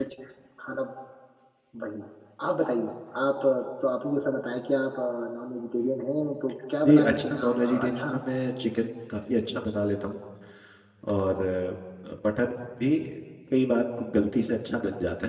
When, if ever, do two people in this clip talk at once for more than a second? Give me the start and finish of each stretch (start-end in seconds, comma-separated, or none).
6.8-8.2